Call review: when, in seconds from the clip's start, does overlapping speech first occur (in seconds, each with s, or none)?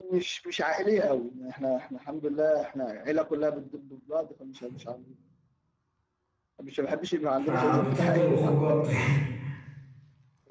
7.4 s